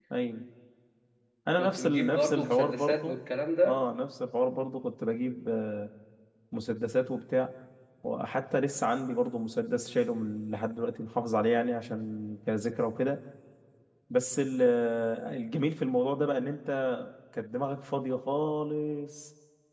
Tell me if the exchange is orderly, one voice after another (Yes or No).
No